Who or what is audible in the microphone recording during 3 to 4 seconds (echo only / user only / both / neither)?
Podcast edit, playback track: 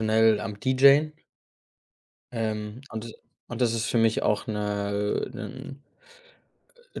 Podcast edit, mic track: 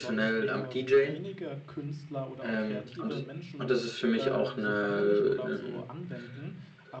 both